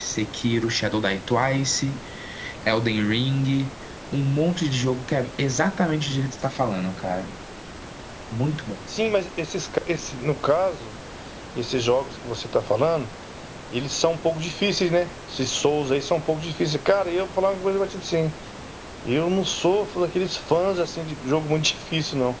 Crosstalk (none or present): none